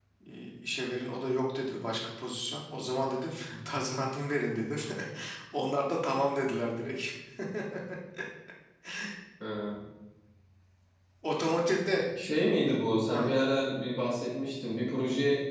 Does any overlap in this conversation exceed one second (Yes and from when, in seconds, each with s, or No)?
No